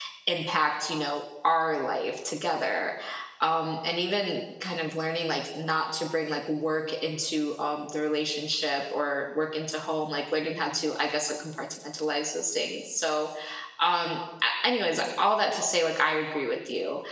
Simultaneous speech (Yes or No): No